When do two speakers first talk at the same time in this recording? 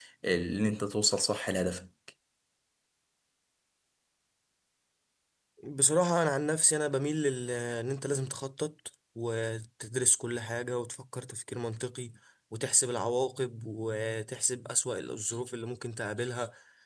none

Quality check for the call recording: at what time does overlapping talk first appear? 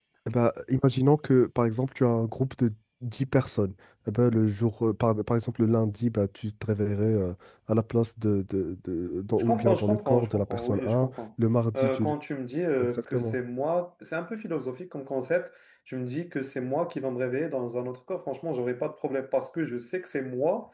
9.4 s

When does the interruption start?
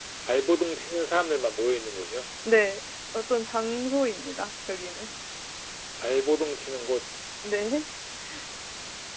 none

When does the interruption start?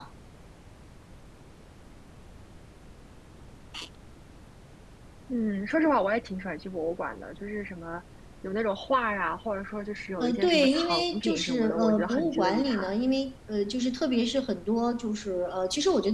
10.2 s

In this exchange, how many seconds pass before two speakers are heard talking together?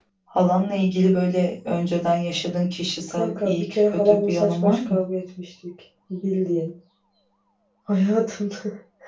3.1 s

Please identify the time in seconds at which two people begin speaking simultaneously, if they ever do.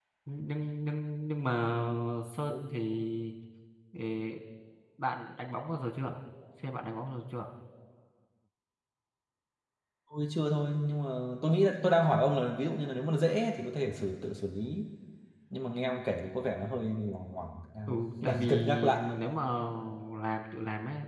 17.9 s

